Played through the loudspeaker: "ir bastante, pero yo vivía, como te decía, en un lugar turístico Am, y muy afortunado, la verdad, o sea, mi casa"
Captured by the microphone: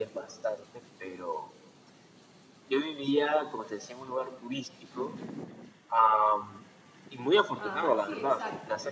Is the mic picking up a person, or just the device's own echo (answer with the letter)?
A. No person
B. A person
B